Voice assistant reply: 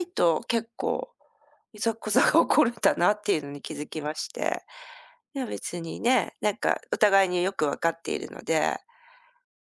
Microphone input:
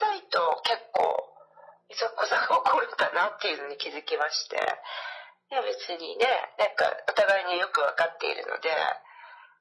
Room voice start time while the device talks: none

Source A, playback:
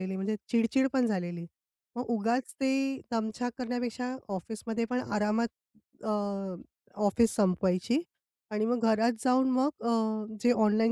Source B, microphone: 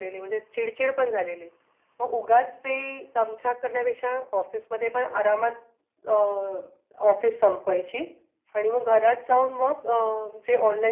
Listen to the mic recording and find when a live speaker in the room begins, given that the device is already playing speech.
none

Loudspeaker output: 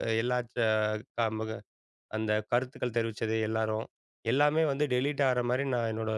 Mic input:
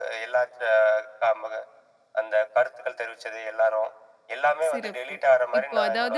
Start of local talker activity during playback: 4.7 s

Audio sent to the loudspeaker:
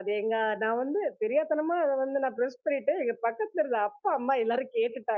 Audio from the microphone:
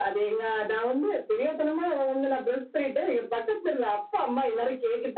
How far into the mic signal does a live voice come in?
none

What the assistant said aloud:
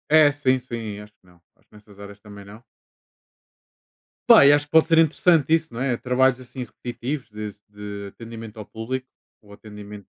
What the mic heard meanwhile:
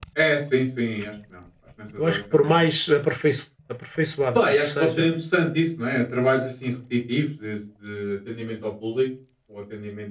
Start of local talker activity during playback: 2.0 s

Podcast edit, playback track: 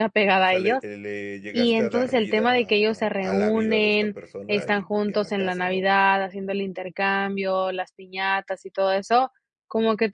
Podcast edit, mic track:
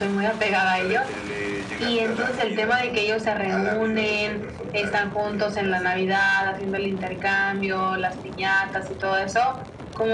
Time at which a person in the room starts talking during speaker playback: none

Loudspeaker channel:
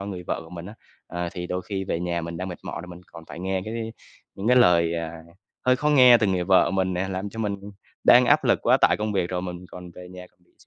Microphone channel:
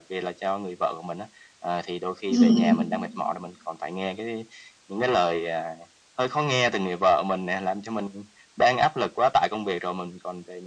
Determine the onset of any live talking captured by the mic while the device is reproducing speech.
2.3 s

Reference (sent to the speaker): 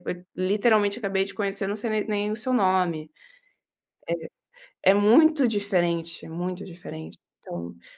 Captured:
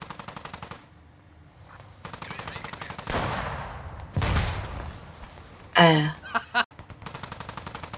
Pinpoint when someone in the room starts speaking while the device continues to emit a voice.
5.8 s

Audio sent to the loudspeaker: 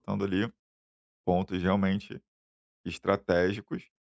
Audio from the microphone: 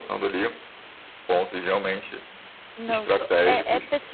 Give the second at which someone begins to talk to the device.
2.8 s

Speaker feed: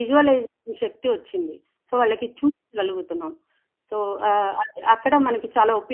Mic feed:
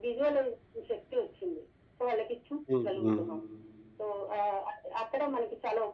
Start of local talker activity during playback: 2.7 s

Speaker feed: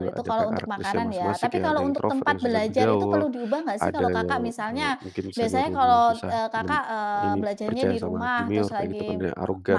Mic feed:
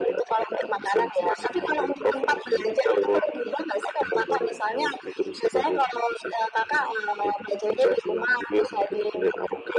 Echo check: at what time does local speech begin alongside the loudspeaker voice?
none

